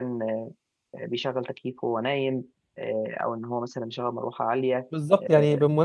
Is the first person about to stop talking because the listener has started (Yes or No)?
Yes